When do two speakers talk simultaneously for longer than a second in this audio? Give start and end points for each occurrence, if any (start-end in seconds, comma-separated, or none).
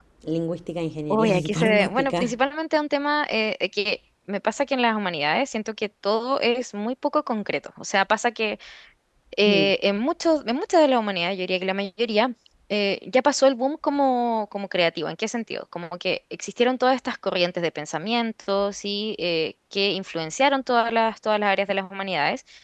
1.1-2.4